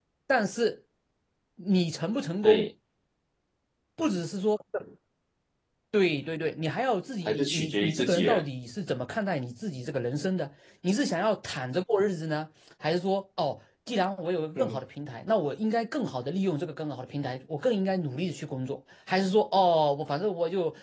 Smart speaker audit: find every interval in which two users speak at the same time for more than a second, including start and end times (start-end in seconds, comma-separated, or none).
7.3-8.5